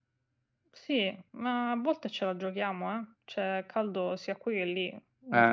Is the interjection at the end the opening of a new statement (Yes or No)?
No